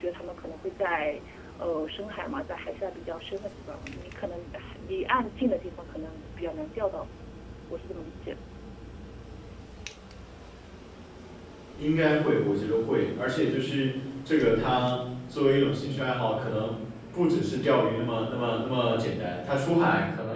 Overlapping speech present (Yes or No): No